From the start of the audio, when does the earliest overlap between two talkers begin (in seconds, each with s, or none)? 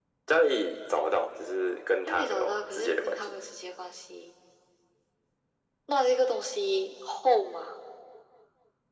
2.1 s